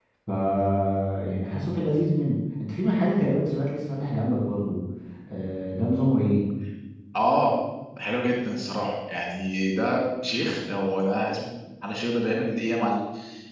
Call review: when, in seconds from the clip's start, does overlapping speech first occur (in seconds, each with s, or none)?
none